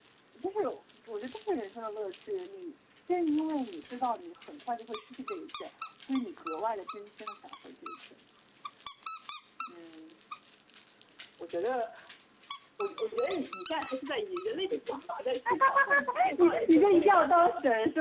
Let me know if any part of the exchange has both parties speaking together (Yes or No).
Yes